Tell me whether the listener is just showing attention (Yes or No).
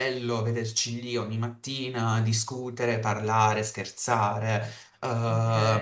Yes